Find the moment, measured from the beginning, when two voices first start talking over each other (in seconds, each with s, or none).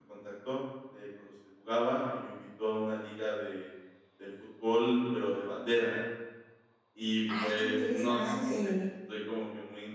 7.4 s